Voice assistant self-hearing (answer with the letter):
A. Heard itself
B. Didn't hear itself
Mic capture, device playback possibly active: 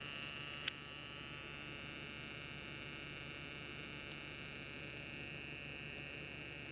B